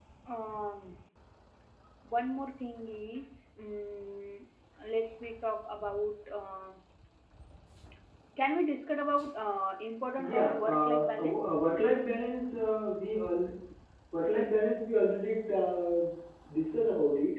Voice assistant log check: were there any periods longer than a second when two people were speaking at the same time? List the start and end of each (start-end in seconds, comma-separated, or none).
10.2-11.6